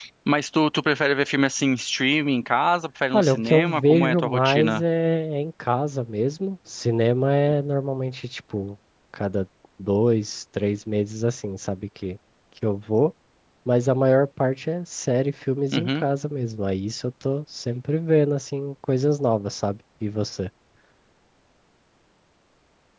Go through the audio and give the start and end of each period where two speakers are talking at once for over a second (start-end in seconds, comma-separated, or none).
3.1-4.8